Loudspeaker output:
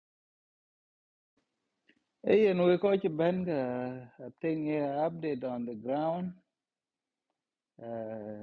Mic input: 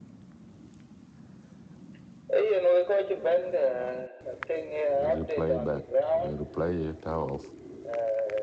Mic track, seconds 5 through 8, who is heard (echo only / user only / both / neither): both